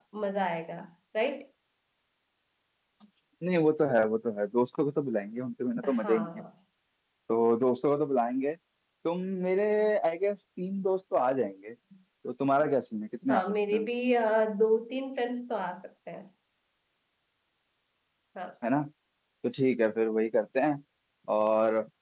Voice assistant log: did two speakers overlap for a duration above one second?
No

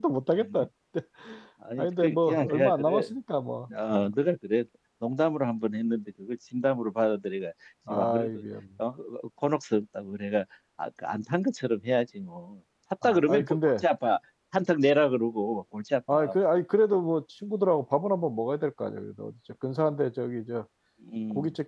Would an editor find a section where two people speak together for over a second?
Yes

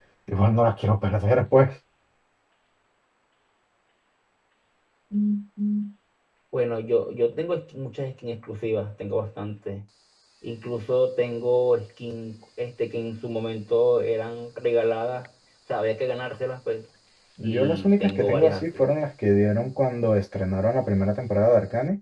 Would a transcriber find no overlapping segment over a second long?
No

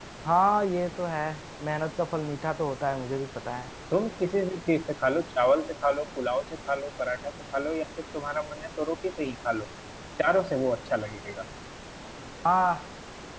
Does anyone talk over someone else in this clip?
No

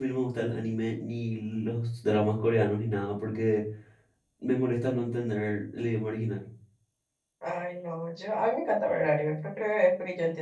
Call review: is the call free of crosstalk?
Yes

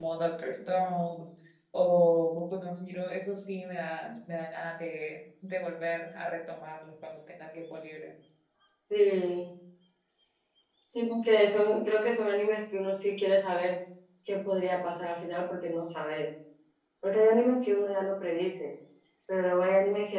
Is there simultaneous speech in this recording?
No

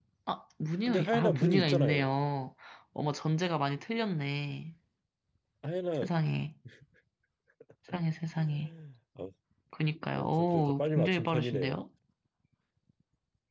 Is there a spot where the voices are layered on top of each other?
Yes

